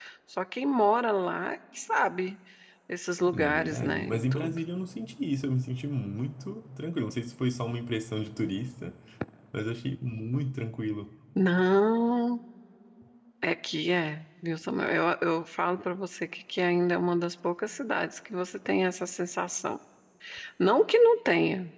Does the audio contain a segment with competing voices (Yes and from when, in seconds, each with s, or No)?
Yes, from 3.3 s